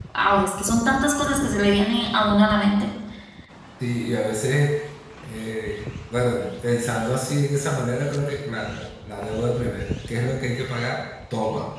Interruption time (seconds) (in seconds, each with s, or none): none